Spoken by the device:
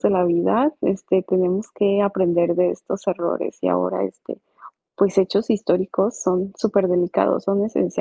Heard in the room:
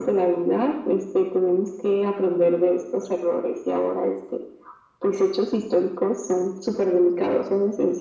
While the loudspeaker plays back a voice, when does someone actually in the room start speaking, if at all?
none

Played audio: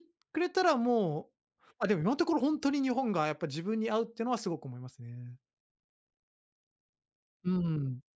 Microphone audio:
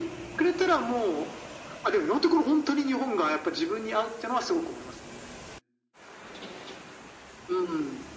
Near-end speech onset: none

